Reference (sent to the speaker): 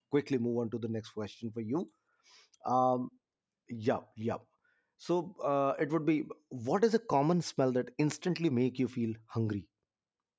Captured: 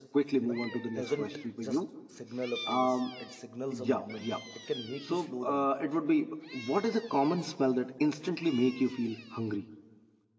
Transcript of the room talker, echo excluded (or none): you know it doesn't just signal a place it signals a moment it can make you slow down